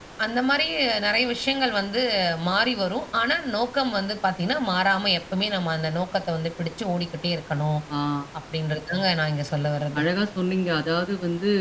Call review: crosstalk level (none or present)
none